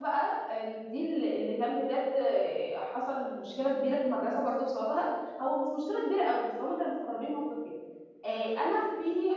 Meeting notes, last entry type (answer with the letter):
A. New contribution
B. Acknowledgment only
B